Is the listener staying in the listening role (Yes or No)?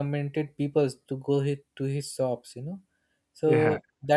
Yes